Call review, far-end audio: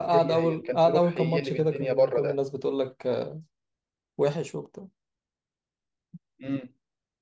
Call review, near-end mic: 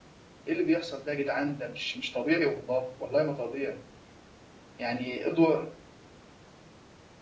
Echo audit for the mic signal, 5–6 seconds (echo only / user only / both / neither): user only